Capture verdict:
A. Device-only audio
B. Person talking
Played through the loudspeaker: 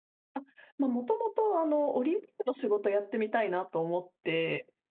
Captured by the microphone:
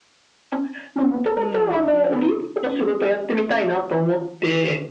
B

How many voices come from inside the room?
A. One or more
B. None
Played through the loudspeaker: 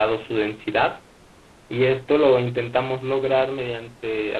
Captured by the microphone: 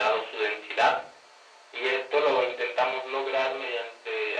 B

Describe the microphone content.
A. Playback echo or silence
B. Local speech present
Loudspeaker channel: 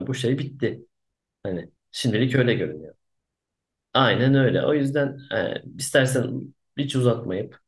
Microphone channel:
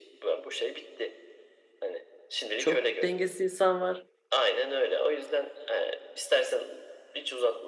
B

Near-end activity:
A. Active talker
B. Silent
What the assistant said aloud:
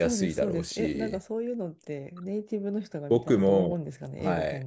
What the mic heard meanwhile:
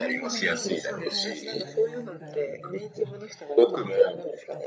A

